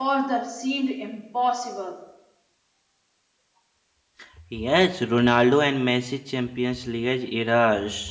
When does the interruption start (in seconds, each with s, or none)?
none